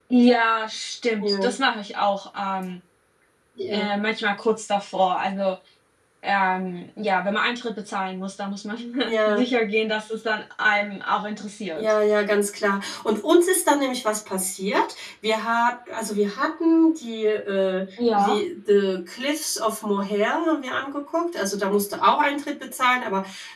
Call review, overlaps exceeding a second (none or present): none